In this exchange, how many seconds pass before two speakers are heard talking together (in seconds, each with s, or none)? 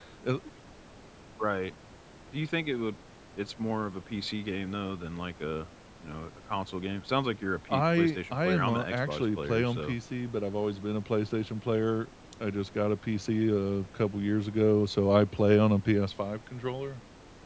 7.7 s